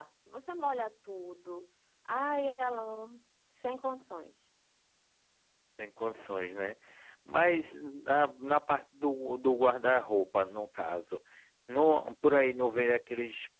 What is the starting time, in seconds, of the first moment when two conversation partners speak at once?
none

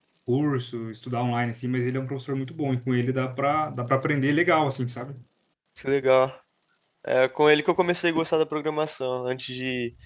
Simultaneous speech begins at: none

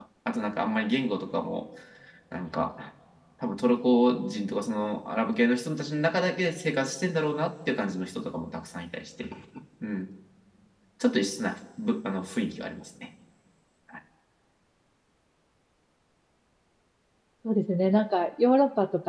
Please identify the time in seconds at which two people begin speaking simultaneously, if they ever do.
none

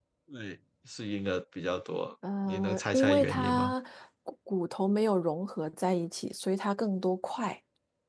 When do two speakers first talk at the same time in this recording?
2.5 s

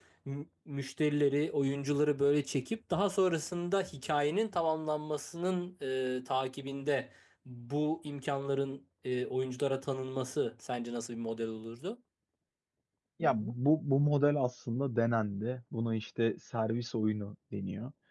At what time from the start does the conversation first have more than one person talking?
none

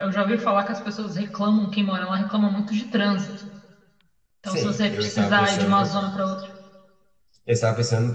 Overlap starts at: 4.5 s

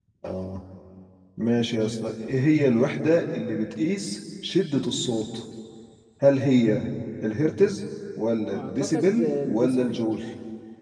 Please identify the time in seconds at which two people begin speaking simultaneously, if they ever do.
8.5 s

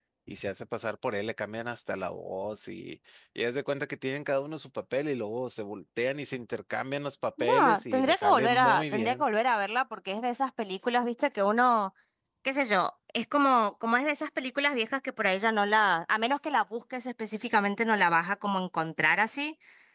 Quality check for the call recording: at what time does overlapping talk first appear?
7.4 s

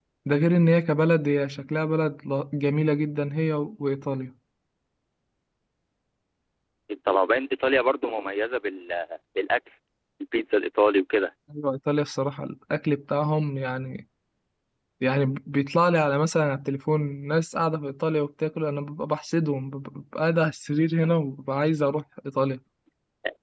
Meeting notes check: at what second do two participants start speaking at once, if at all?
none

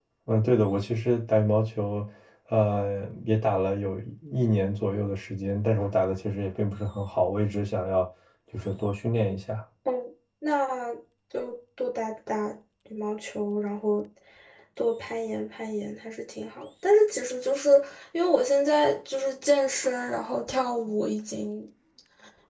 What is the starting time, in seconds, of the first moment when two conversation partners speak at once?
none

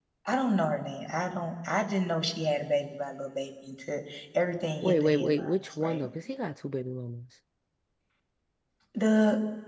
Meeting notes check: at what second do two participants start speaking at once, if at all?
4.8 s

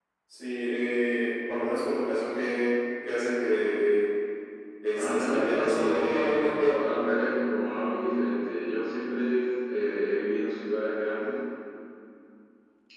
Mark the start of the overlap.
5.0 s

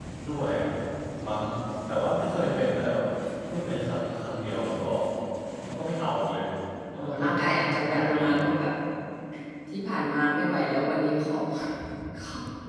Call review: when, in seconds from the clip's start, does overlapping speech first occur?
7.0 s

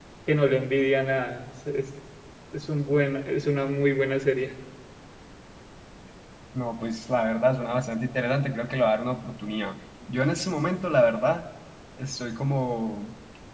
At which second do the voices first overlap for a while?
none

